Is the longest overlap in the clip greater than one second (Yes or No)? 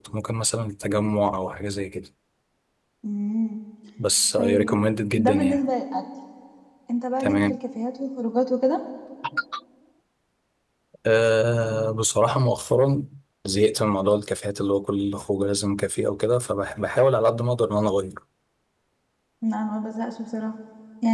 No